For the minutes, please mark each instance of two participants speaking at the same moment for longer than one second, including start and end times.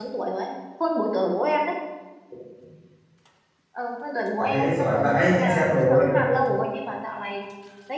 4.4-6.1

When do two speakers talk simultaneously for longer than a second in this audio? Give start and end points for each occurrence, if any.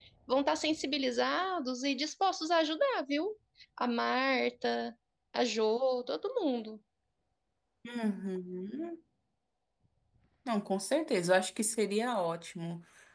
none

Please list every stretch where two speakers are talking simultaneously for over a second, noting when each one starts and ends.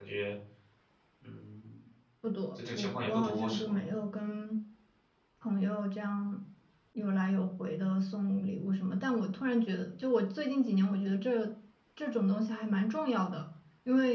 2.5-3.8

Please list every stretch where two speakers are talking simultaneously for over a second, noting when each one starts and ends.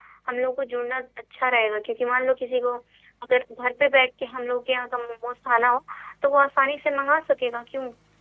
none

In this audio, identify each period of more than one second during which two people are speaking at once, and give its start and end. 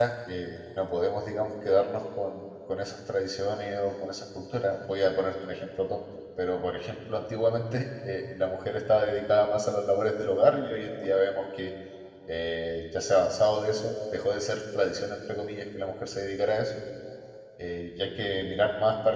none

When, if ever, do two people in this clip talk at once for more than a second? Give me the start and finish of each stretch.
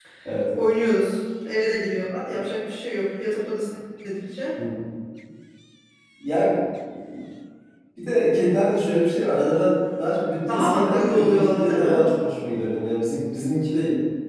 10.5-12.1

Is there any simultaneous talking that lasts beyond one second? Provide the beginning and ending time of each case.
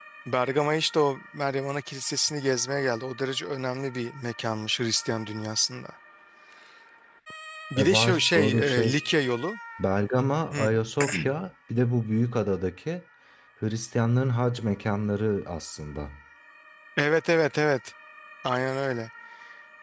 7.8-9.0

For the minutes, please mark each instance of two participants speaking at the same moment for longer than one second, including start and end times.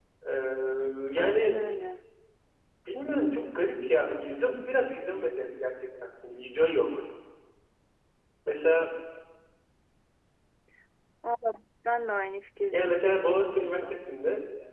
12.7-14.0

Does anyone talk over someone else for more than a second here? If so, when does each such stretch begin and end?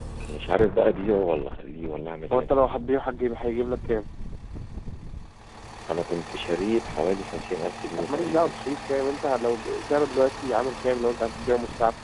none

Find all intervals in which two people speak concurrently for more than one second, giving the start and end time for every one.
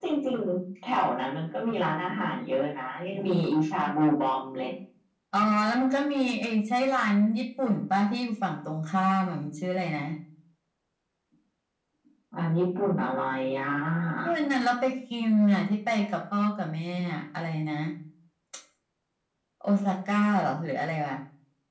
none

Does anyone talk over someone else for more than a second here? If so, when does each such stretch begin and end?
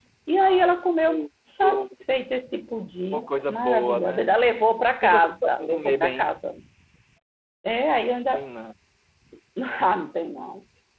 3.1-4.3, 5.0-6.3

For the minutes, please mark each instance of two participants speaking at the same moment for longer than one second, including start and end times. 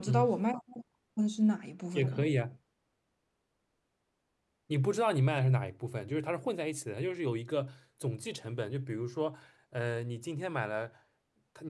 none

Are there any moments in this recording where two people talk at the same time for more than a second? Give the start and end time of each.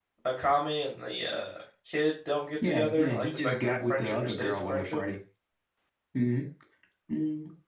2.6-5.0

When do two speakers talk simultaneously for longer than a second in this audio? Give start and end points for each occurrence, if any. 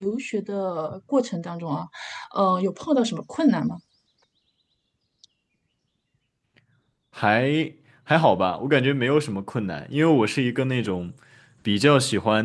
none

